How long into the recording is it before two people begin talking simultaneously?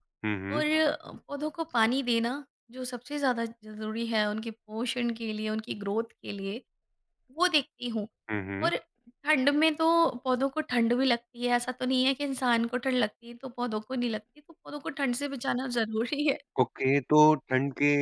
none

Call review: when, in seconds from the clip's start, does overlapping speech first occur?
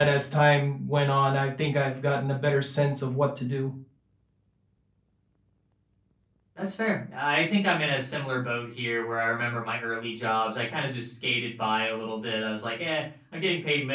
none

